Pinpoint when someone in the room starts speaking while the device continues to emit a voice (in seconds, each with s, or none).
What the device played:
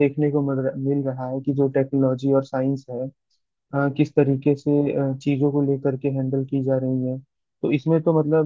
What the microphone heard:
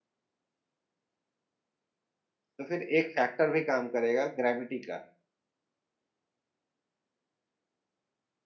2.6 s